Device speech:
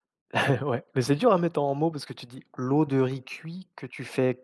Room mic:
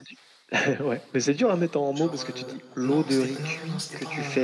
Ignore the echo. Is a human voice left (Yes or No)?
Yes